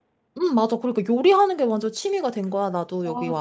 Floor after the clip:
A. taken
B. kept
A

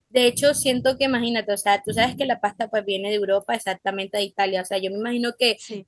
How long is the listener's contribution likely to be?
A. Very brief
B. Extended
A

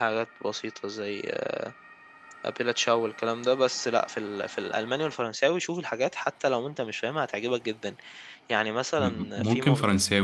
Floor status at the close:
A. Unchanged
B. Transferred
B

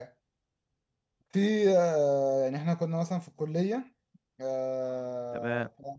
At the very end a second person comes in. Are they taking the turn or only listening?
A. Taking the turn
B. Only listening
B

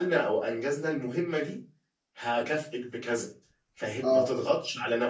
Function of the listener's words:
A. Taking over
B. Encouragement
B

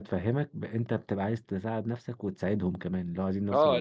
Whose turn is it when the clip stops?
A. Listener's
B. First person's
A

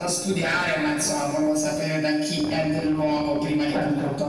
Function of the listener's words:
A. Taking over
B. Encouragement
A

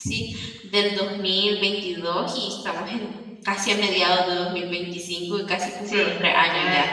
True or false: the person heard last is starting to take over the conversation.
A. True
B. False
A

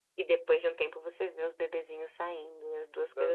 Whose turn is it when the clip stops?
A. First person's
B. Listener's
B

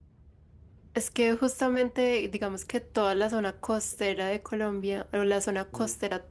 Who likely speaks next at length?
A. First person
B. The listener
A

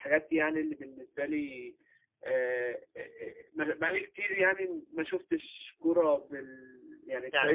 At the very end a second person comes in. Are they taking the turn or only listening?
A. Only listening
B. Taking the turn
B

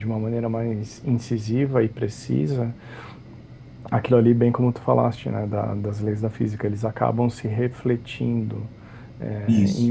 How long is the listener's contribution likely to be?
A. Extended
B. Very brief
B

